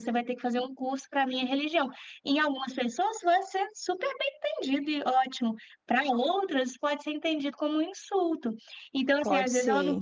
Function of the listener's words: listening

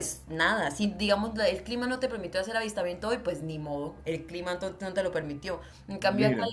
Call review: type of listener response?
listening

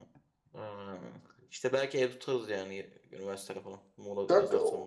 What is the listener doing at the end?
taking over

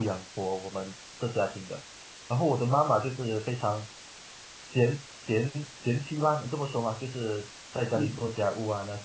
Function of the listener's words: listening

